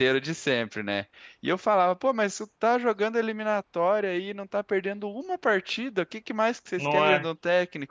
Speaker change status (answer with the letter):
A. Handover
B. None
B